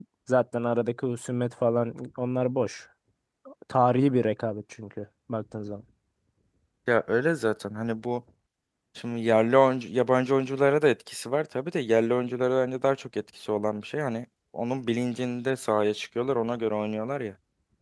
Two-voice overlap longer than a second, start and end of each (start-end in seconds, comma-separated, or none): none